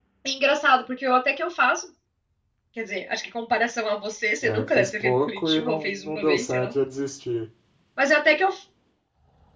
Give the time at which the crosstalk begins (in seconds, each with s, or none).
4.4 s